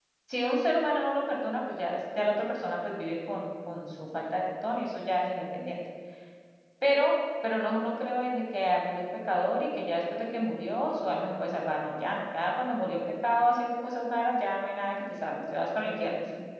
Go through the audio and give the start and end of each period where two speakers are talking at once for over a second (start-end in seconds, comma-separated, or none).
none